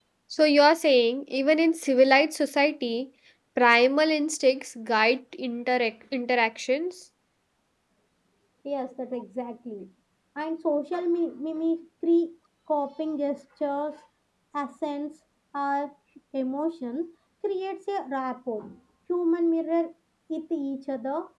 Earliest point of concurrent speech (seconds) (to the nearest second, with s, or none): none